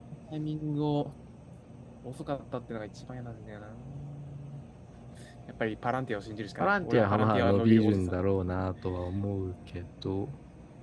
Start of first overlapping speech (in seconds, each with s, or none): 6.6 s